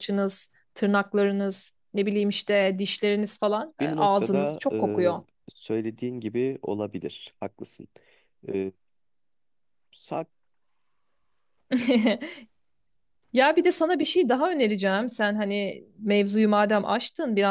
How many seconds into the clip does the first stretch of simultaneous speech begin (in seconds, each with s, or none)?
3.8 s